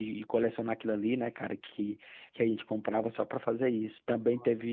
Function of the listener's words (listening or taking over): listening